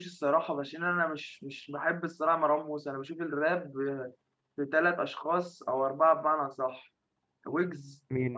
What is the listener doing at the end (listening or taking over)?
listening